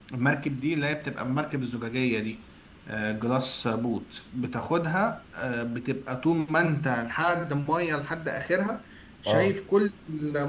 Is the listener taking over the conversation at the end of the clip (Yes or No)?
No